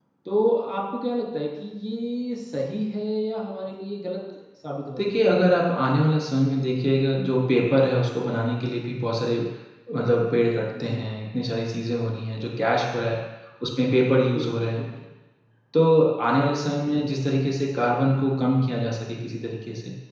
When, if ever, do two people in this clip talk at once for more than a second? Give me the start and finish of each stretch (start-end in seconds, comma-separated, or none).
none